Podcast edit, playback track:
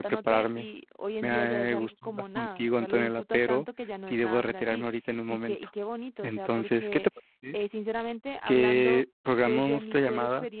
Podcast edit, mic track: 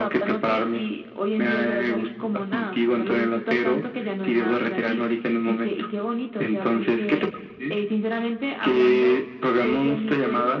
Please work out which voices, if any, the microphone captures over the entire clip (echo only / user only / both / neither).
echo only